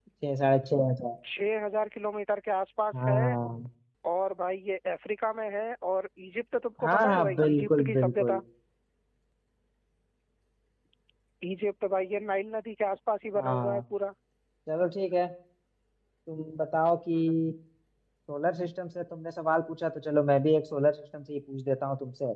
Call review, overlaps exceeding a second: present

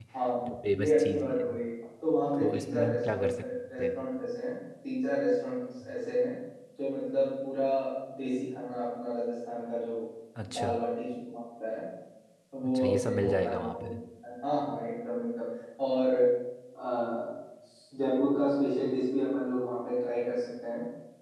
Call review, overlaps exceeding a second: present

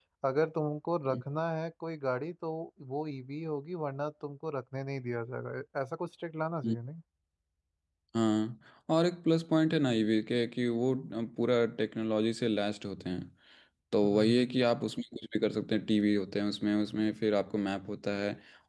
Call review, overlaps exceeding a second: none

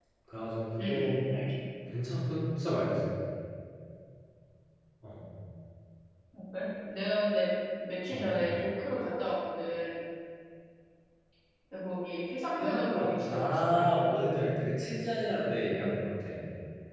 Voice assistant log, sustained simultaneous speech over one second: present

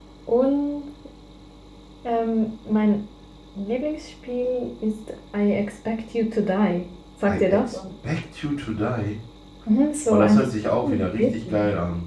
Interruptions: present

